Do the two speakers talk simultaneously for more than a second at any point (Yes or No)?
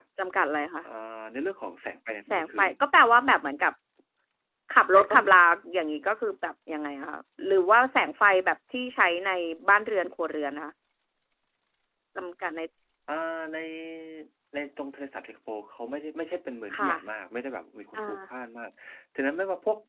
No